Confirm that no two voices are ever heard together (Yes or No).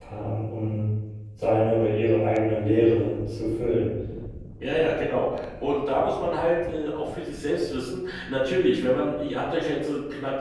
Yes